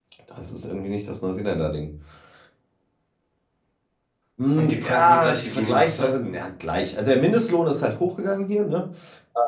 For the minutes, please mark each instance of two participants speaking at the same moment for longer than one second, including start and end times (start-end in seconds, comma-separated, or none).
4.6-6.1